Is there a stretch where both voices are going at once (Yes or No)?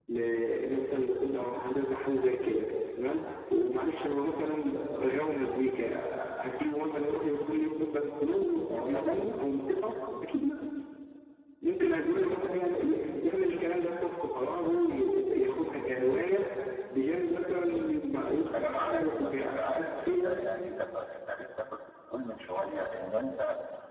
Yes